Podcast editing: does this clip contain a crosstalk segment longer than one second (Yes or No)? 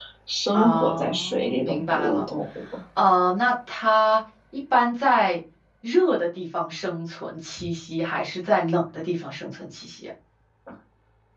Yes